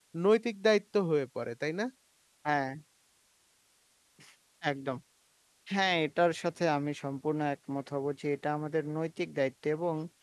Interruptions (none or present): none